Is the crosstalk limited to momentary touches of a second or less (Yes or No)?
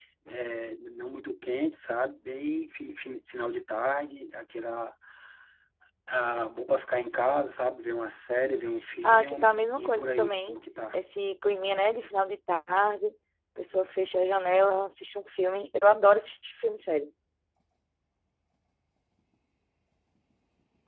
No